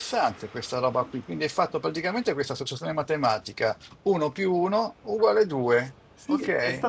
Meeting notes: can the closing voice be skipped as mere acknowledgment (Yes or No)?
No